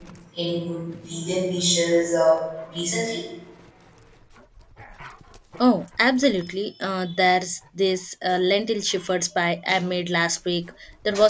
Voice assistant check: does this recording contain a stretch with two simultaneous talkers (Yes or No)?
No